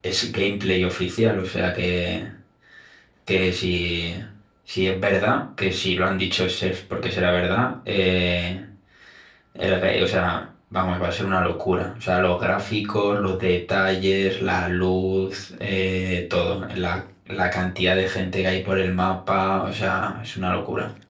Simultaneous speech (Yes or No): No